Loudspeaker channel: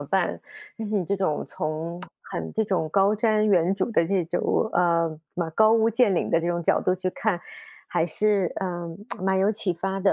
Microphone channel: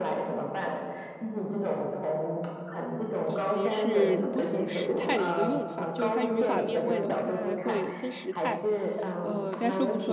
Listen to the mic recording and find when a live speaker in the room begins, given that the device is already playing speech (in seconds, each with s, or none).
3.2 s